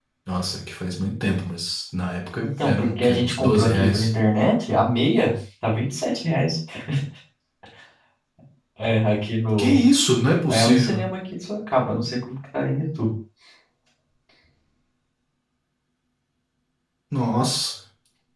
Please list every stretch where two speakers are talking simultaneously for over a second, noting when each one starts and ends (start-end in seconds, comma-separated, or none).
2.4-4.1